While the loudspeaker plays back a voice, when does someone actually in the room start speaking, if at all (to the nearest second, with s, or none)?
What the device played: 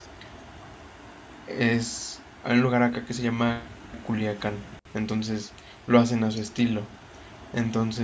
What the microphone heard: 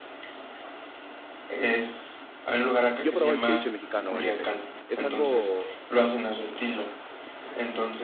3 s